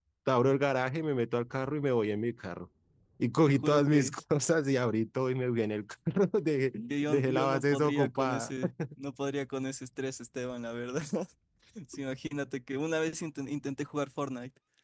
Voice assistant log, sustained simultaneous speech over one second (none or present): present